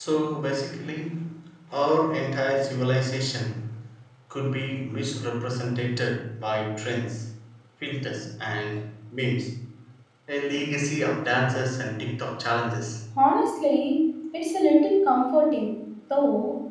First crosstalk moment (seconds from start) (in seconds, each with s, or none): none